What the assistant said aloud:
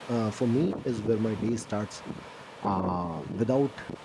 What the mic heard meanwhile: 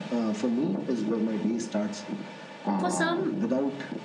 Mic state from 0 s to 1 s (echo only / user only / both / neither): echo only